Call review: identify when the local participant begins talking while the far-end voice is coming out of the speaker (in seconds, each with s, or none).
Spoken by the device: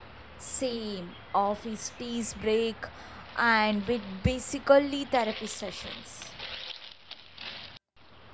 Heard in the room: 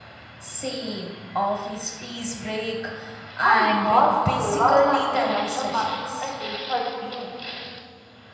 3.4 s